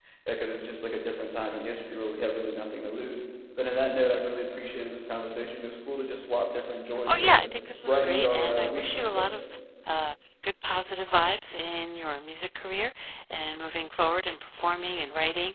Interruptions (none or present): present